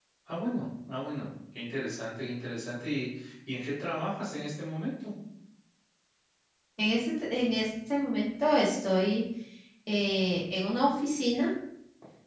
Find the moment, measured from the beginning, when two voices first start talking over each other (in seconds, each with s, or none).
none